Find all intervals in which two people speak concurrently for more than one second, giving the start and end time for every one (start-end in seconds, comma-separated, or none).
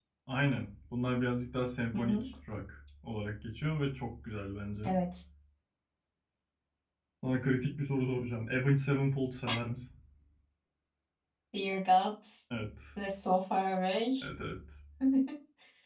none